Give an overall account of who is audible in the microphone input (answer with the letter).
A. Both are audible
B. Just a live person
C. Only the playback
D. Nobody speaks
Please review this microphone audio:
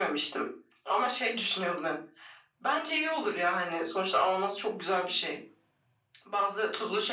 C